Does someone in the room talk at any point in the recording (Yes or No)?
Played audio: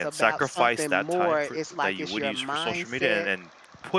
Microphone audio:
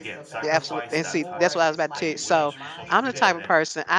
Yes